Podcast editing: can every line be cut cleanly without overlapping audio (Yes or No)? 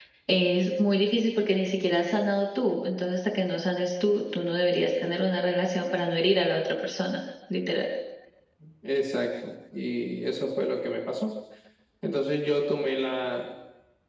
Yes